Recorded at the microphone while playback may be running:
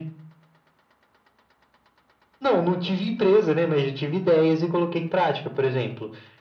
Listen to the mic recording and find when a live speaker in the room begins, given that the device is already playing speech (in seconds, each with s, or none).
none